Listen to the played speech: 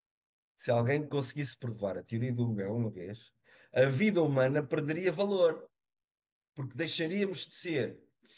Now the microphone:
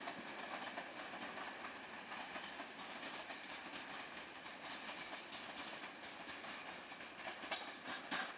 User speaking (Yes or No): No